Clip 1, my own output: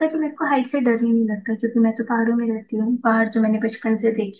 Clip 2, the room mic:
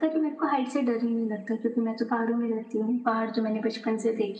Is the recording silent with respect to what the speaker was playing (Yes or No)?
No